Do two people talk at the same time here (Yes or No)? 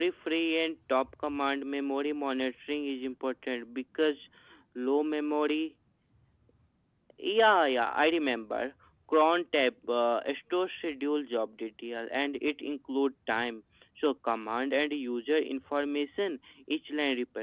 No